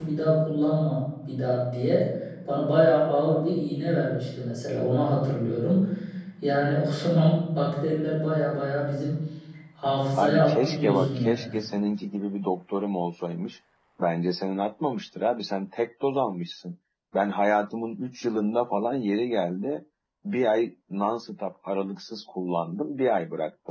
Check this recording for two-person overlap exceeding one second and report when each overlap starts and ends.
10.2-11.4

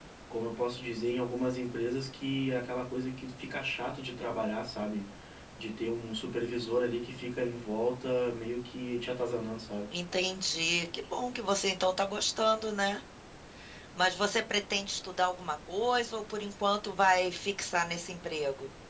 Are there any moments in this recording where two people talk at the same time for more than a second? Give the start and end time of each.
none

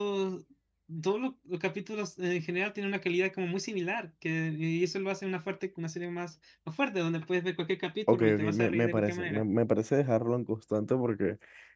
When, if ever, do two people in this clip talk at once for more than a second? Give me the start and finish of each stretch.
8.1-9.4

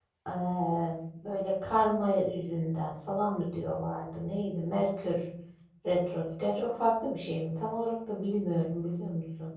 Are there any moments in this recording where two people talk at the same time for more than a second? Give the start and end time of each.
none

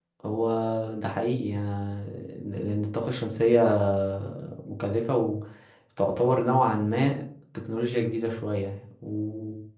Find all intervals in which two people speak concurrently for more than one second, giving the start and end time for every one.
none

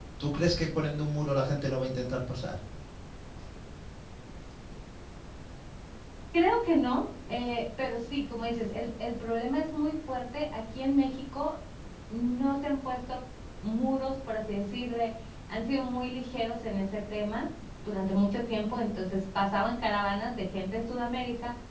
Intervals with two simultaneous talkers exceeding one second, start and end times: none

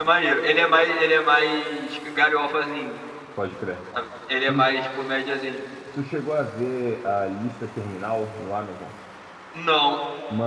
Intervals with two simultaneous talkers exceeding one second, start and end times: none

